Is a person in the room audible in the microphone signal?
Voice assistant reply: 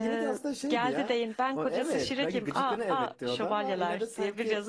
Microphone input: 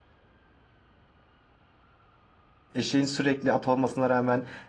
Yes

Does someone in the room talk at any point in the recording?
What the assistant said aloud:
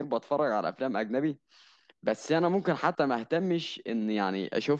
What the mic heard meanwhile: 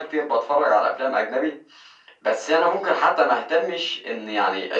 No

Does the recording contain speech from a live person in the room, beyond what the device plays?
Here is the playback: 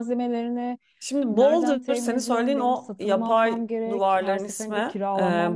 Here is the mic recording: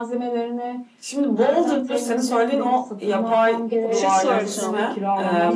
Yes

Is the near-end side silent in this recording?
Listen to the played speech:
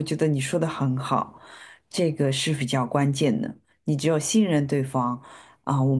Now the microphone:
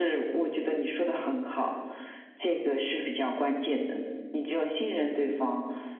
Yes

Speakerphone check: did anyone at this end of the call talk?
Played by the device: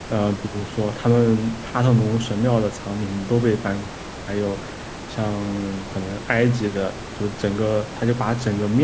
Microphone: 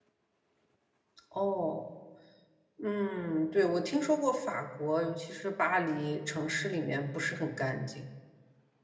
Yes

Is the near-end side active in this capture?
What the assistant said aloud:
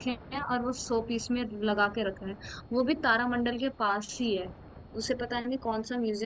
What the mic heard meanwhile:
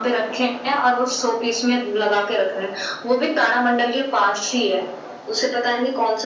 No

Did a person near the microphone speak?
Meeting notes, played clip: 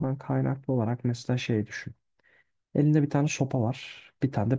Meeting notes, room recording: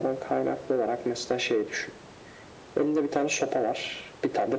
No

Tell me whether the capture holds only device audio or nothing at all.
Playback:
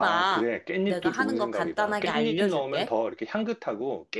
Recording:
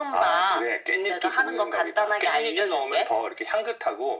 Yes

